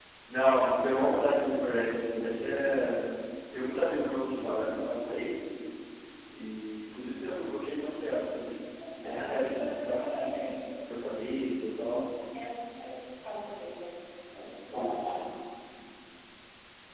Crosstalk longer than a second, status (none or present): present